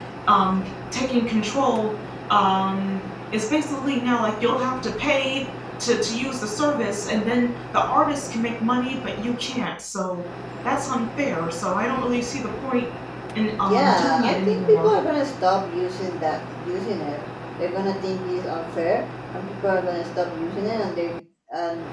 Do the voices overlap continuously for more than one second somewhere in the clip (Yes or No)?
Yes